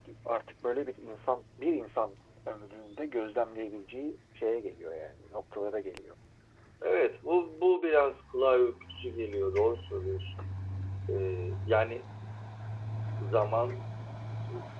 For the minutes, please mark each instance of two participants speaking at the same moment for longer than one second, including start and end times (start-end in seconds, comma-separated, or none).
none